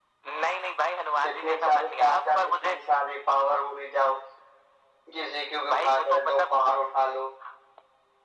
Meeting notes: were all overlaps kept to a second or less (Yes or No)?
No